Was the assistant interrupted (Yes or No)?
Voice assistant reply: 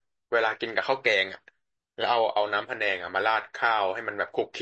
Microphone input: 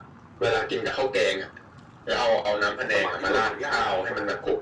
Yes